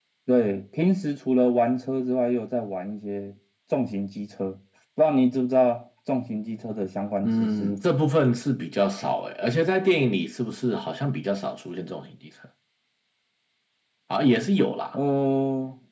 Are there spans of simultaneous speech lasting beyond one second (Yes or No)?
No